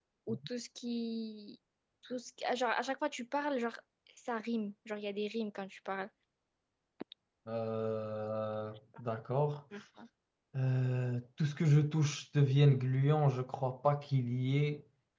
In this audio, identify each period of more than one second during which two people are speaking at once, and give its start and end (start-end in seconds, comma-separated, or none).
none